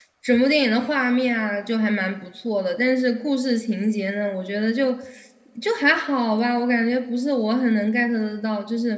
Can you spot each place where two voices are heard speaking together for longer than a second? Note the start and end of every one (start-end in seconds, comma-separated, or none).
none